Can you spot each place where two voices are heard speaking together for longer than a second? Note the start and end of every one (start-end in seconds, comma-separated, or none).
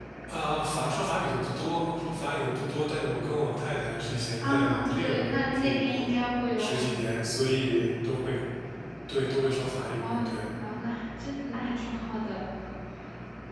4.4-6.1